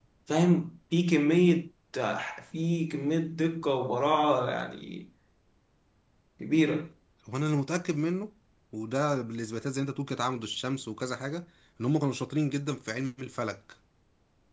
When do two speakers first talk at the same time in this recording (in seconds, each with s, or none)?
none